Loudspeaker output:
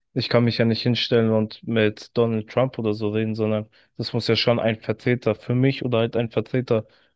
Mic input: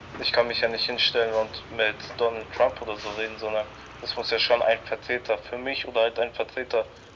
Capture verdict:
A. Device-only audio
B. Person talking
A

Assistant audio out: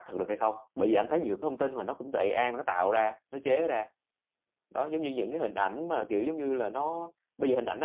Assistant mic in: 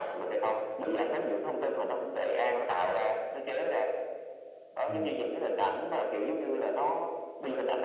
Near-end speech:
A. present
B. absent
A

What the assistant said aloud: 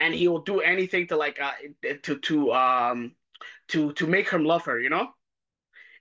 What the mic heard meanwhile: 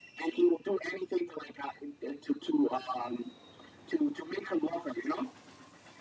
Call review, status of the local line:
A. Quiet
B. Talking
A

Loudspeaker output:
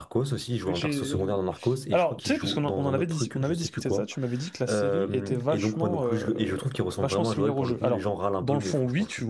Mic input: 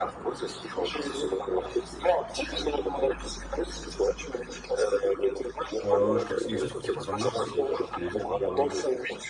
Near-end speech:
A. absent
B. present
B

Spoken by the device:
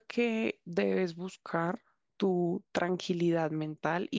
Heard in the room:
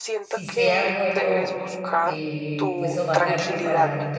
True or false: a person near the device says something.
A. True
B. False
A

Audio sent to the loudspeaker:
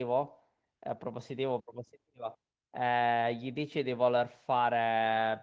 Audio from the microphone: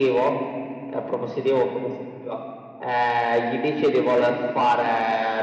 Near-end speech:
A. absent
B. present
A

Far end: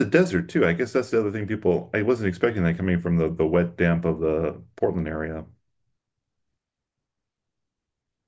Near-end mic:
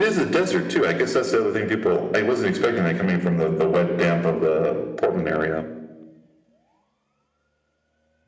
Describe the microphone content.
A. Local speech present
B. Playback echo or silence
B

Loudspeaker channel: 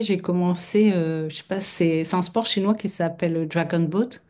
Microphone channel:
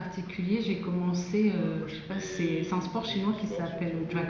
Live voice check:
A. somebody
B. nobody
A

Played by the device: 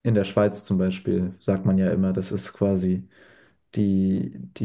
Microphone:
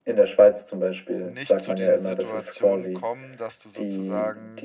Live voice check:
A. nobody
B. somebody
B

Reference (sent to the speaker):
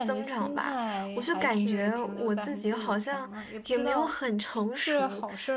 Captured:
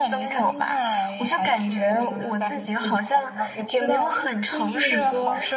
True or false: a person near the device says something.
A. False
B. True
B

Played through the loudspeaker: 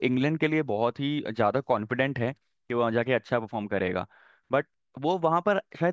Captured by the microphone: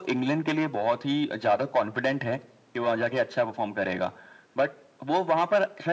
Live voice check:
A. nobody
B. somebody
A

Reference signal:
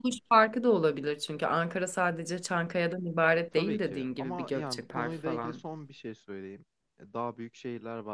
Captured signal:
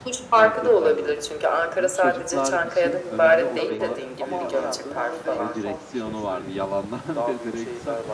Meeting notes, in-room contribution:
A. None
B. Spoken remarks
B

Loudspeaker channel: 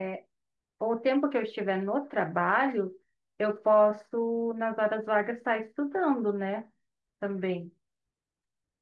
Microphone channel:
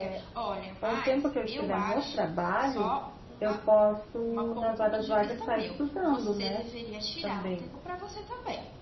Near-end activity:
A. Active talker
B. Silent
A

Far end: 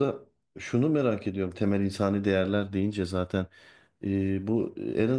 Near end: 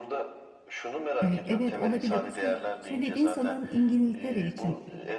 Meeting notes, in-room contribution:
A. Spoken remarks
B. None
A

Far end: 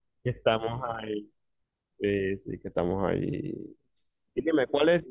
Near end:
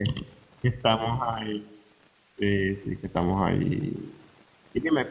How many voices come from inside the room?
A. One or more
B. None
B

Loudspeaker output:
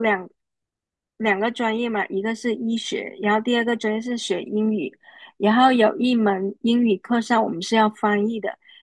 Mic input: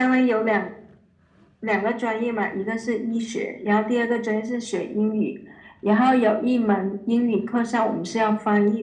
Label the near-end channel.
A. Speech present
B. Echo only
B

